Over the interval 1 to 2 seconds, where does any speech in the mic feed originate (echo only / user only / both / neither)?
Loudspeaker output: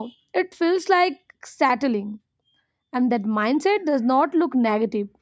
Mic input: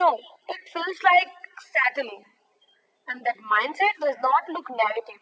echo only